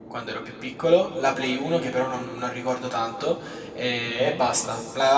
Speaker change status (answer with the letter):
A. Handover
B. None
B